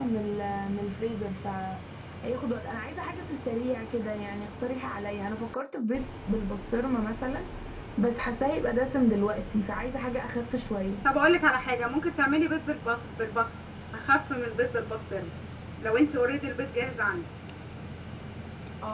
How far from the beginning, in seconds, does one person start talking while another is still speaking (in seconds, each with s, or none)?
none